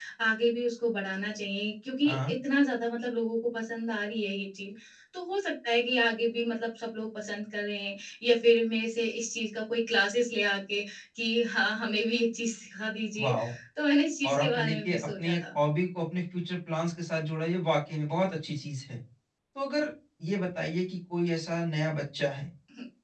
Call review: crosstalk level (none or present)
present